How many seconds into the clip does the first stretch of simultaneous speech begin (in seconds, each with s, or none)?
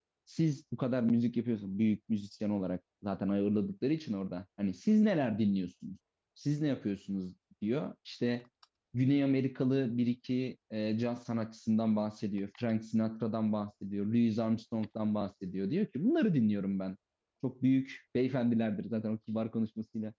none